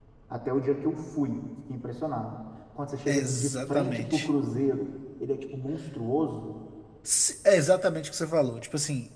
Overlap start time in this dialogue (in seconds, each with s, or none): 3.1 s